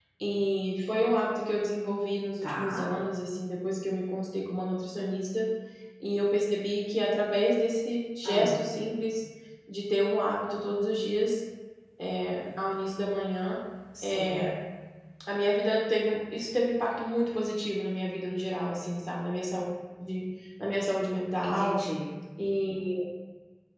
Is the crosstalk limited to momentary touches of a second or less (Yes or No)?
Yes